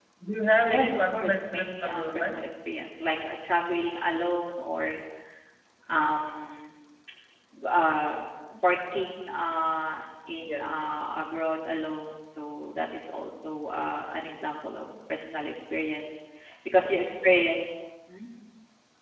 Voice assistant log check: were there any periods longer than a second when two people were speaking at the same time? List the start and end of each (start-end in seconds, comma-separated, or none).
0.7-2.4